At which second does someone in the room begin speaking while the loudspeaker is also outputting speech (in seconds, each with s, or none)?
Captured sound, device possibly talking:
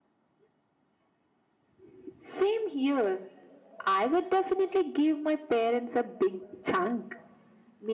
none